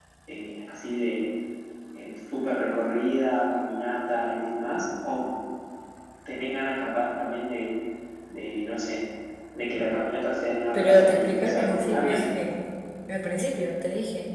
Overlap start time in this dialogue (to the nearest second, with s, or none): 11 s